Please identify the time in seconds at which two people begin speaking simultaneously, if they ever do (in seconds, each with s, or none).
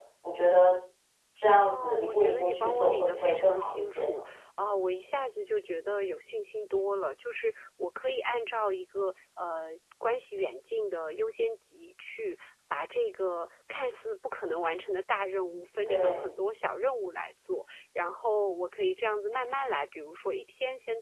1.6 s